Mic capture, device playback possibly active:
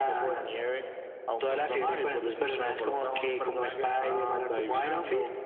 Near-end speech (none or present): none